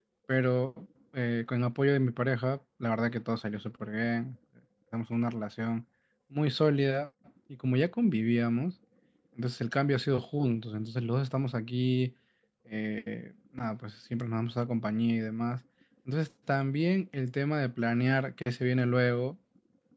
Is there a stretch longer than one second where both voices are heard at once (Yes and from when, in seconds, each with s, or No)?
No